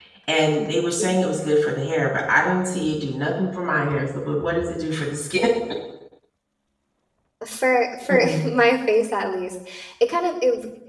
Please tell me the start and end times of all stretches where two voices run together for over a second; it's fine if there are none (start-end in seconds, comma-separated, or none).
none